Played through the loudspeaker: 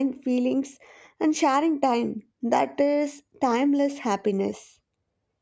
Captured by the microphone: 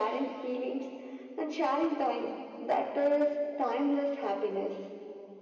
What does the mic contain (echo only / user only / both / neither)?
echo only